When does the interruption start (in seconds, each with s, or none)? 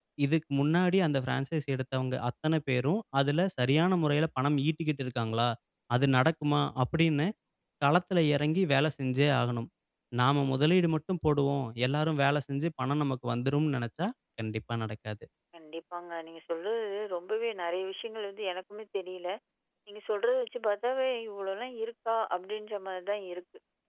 none